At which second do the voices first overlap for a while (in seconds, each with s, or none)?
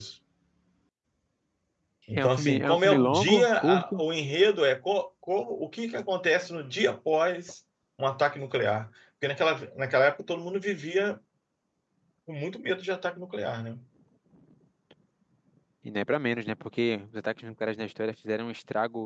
2.1 s